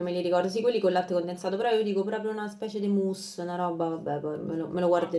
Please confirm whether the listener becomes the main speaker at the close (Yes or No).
Yes